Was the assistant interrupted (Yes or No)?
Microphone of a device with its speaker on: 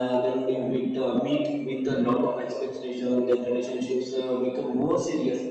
No